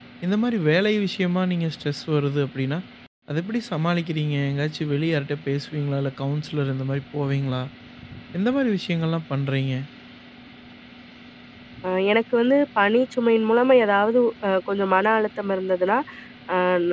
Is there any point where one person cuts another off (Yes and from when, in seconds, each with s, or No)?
No